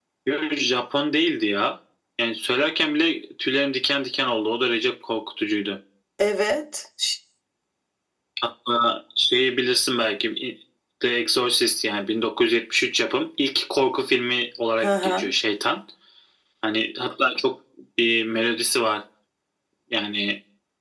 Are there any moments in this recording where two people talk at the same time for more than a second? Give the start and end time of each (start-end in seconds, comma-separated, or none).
none